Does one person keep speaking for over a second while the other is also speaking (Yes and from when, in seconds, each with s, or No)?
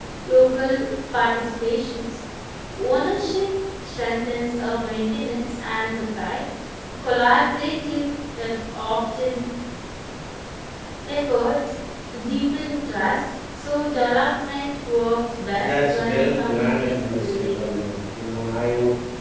Yes, from 15.6 s